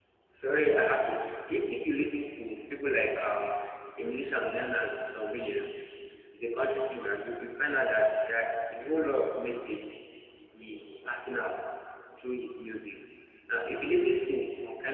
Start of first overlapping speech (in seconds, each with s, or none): none